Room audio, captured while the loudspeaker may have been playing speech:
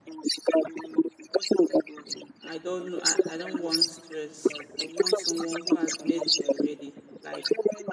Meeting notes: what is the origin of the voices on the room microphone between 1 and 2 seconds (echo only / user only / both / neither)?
echo only